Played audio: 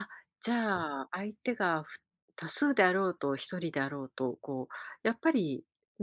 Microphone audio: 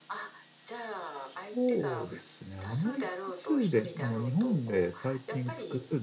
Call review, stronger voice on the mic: user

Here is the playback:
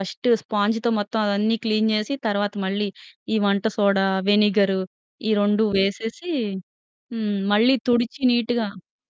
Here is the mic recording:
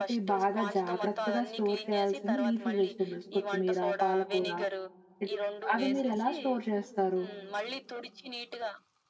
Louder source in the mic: user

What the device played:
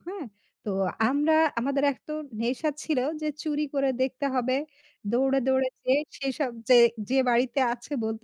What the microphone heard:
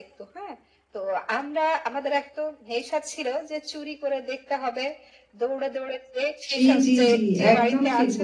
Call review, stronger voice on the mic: user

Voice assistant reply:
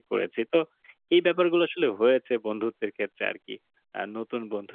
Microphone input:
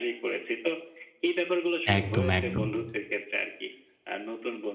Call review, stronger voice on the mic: user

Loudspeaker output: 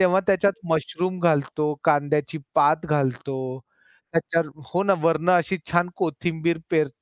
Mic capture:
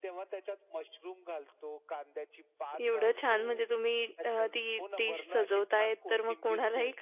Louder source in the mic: user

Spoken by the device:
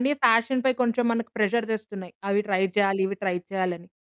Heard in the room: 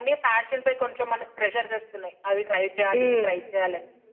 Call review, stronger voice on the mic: user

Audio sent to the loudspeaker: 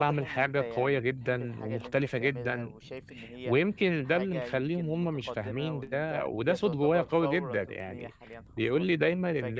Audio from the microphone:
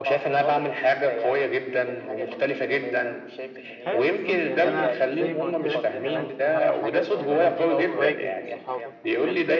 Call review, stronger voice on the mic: echo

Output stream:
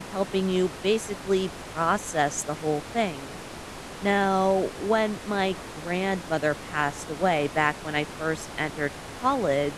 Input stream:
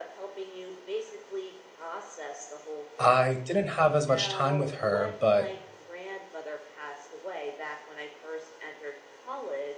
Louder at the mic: user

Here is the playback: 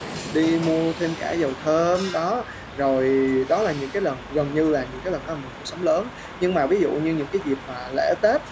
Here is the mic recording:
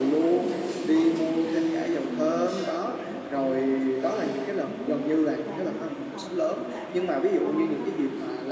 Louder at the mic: echo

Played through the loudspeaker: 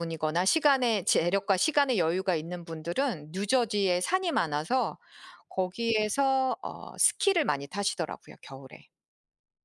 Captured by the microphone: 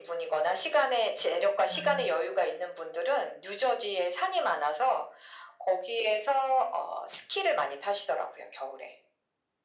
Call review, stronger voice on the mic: echo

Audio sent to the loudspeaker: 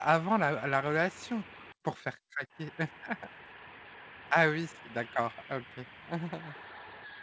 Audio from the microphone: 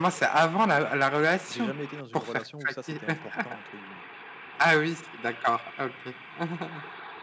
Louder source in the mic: echo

